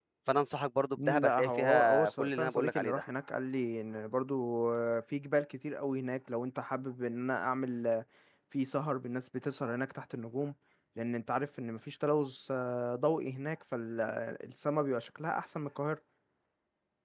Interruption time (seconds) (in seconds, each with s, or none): 1.0 s